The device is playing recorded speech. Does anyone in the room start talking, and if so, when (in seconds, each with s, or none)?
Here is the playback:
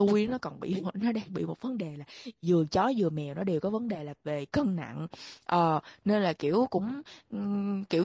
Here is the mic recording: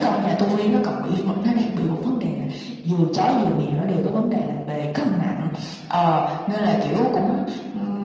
none